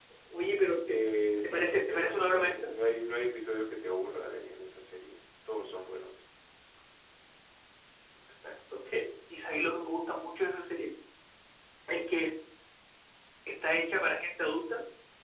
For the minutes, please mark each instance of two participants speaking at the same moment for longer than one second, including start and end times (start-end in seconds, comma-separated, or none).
1.4-2.7